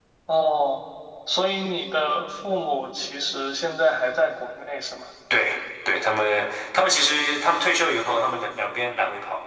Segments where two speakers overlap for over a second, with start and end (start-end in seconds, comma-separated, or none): none